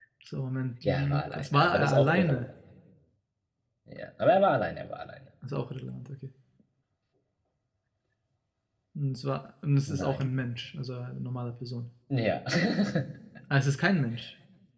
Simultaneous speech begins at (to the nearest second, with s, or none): 1 s